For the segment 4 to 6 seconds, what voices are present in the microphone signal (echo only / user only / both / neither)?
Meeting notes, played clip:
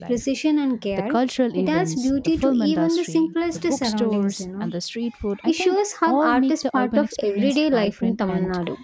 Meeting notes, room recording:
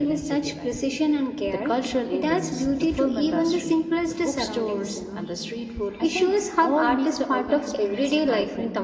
echo only